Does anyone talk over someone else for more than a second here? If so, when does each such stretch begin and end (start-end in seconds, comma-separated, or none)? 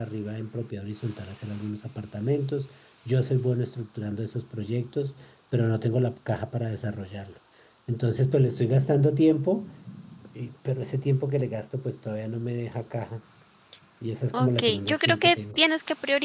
14.3-15.6